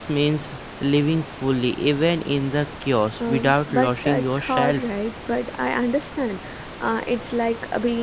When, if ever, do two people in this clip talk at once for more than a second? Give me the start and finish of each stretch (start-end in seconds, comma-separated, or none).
3.3-4.8